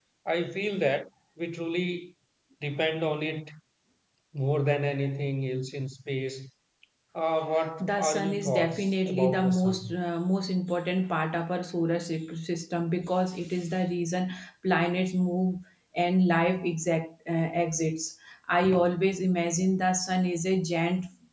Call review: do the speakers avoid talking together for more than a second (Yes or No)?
No